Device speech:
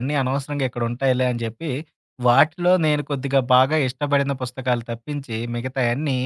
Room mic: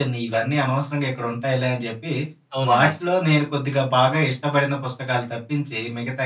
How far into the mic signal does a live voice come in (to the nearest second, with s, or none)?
3 s